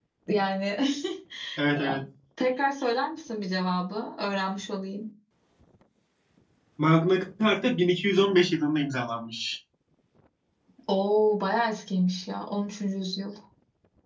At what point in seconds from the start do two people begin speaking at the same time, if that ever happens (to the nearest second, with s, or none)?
none